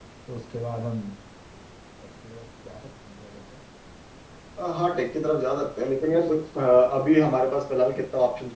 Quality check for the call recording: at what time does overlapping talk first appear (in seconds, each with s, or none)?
none